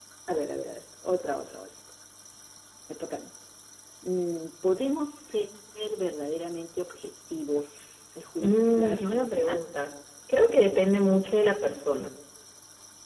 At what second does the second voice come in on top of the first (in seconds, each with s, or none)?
8.4 s